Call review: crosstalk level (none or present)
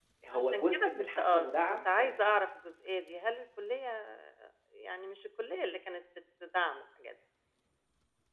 present